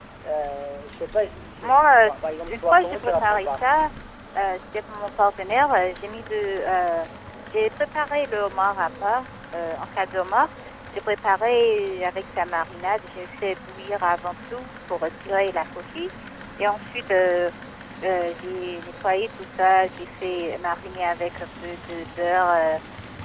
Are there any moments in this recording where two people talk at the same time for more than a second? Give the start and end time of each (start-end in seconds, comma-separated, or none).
1.6-3.5